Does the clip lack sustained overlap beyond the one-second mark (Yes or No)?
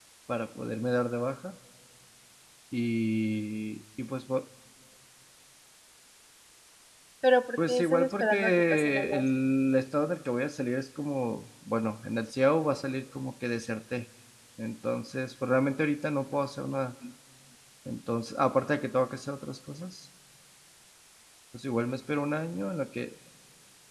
No